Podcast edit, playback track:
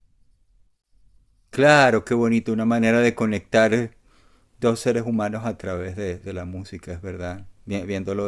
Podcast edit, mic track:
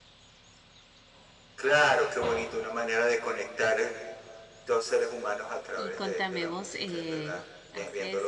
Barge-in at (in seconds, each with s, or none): 5.7 s